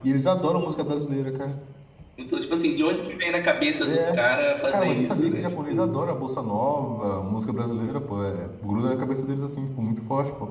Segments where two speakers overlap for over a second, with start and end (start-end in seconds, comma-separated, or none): 4.7-6.0